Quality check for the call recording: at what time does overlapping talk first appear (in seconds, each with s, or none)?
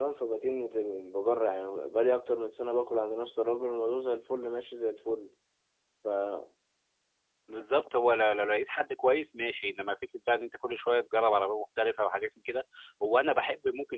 none